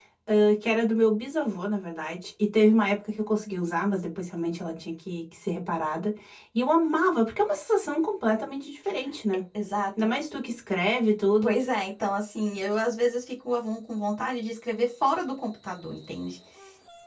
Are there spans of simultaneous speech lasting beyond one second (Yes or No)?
No